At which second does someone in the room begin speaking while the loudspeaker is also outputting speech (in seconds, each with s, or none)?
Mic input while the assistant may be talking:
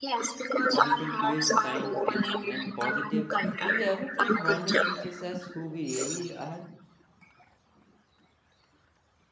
0.7 s